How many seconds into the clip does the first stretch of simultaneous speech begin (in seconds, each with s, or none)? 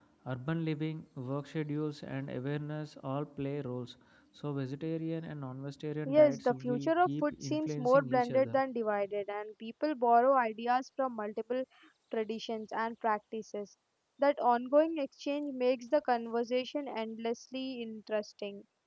6.0 s